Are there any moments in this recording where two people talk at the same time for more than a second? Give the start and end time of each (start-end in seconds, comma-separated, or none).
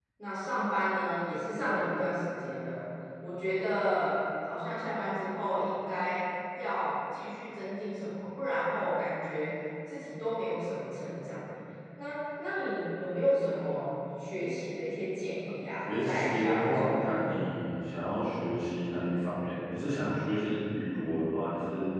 16.0-17.3